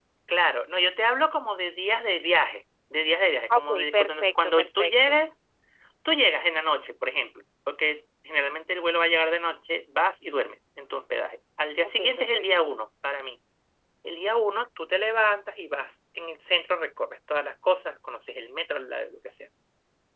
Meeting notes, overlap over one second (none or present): present